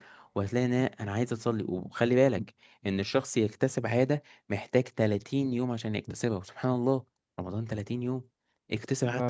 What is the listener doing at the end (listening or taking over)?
listening